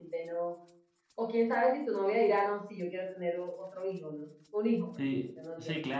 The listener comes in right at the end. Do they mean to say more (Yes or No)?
Yes